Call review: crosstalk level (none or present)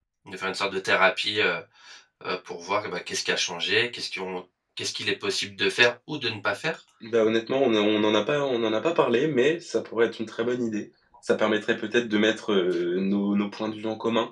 none